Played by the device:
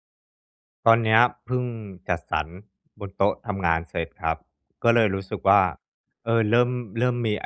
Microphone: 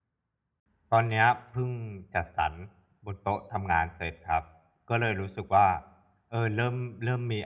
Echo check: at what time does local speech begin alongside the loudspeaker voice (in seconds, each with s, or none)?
none